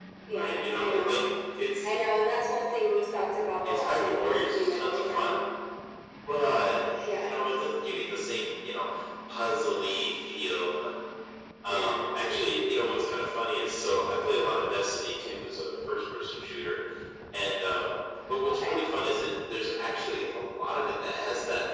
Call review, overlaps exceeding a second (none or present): present